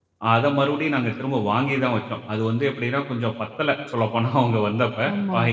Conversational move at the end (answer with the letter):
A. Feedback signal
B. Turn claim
B